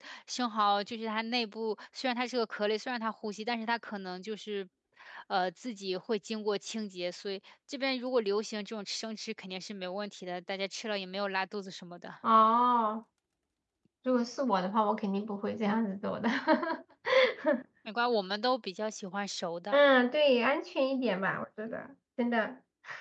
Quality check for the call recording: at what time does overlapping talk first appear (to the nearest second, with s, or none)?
none